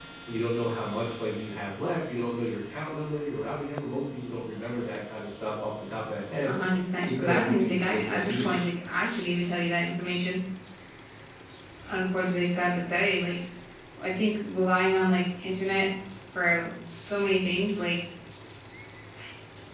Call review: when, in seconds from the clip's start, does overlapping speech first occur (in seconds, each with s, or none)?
7.0 s